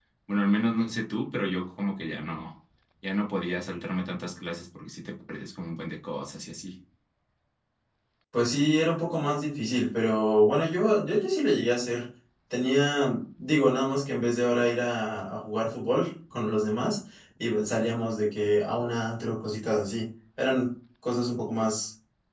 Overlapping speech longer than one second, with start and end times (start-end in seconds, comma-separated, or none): none